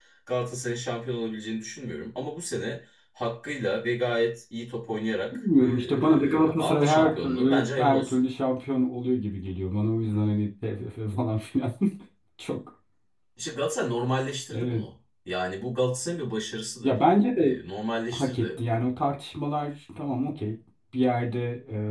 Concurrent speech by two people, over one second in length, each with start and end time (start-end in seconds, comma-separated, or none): 5.3-8.3